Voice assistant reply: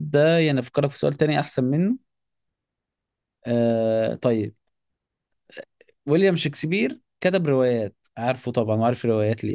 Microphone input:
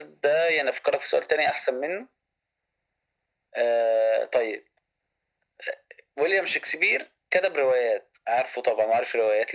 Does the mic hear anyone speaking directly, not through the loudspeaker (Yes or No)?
No